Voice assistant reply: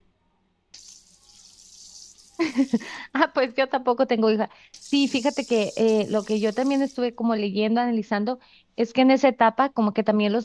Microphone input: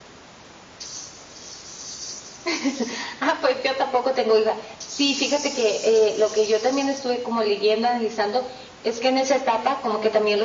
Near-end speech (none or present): present